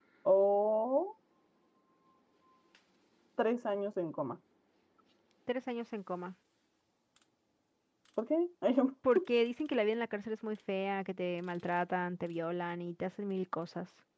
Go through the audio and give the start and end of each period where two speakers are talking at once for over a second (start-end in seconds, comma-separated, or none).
none